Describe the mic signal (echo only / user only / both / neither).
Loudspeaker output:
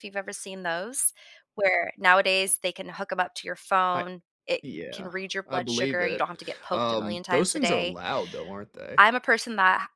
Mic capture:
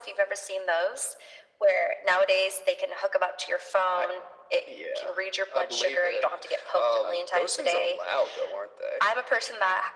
echo only